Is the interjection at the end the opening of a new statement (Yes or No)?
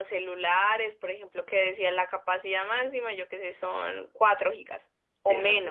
Yes